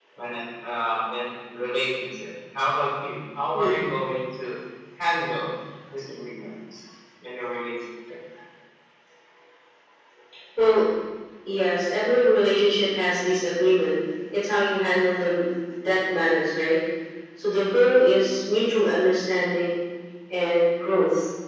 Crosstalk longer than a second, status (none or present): none